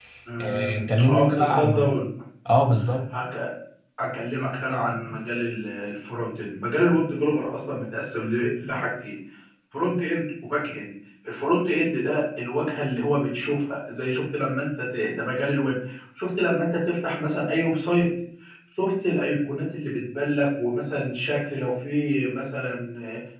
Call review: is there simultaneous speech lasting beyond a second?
Yes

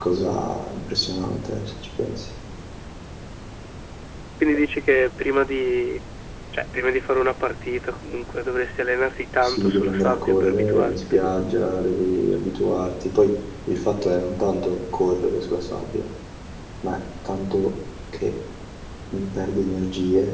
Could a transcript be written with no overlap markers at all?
No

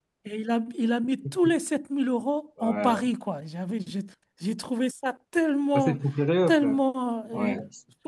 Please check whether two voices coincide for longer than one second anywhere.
No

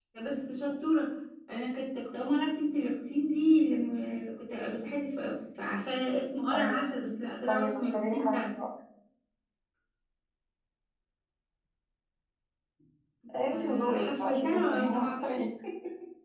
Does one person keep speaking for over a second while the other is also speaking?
Yes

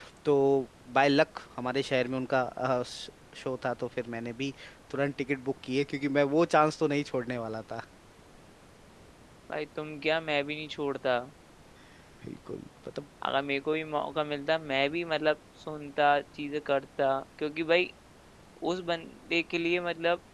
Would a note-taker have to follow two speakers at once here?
No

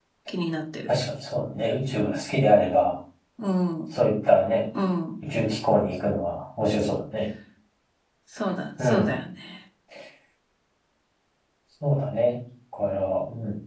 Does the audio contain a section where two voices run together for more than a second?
No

